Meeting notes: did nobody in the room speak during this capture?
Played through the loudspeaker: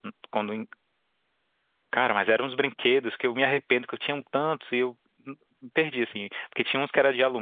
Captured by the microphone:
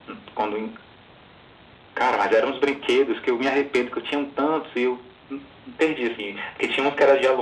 Yes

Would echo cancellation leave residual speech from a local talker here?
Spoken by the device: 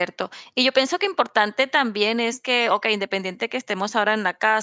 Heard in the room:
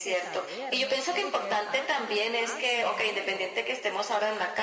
Yes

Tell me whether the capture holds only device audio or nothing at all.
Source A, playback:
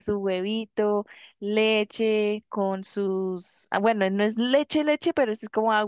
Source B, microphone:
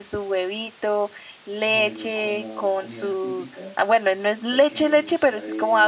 No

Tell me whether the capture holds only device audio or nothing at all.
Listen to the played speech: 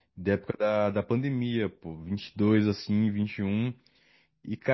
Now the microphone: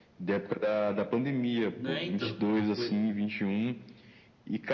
No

